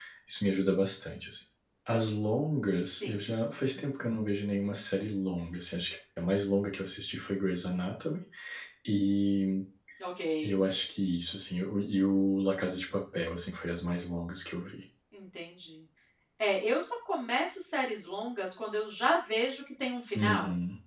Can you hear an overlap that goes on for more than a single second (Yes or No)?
No